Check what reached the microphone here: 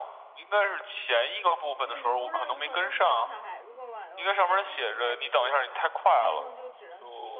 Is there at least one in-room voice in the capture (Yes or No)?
Yes